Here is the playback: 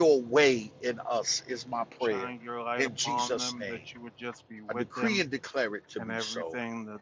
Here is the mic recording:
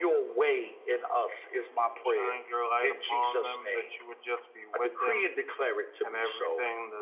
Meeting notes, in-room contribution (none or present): none